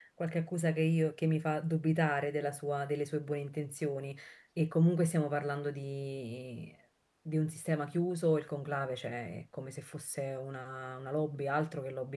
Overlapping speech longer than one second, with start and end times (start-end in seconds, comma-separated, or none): none